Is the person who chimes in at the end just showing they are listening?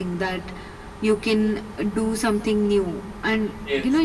Yes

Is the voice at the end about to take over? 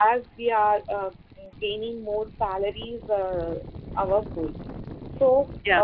No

